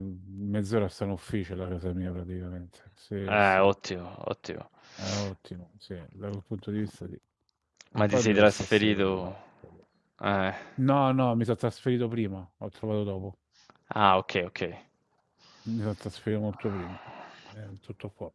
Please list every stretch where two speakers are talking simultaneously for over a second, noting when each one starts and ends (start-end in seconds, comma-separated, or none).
8.1-9.3